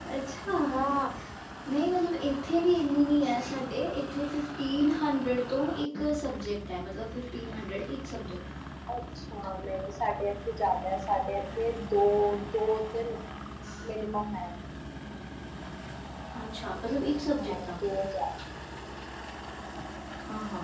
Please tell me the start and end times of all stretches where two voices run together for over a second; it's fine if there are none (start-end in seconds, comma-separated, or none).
none